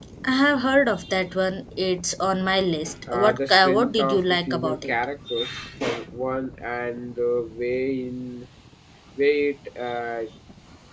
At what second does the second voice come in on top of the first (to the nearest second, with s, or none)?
3 s